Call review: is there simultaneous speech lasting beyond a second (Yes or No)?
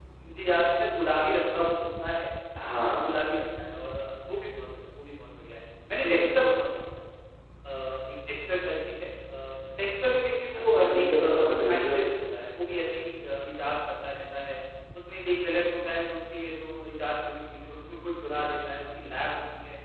Yes